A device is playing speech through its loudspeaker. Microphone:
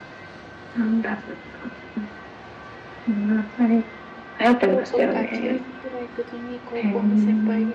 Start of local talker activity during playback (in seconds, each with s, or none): 4.7 s